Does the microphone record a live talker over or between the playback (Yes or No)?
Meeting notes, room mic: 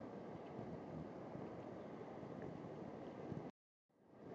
No